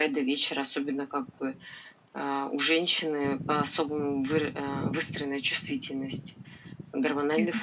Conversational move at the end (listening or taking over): listening